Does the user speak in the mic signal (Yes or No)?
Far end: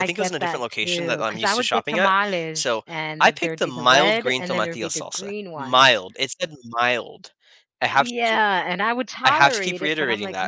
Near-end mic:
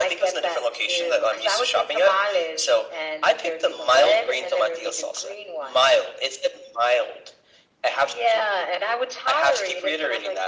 No